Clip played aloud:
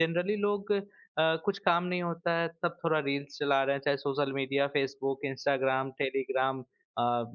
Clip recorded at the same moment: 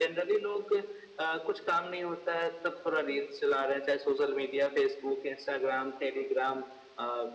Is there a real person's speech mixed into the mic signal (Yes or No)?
No